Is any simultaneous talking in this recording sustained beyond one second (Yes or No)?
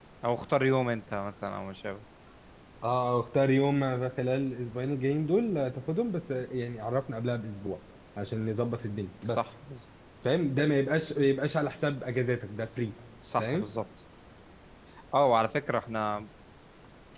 No